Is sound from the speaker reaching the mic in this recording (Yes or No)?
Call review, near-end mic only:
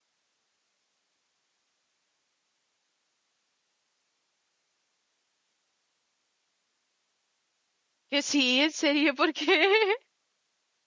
No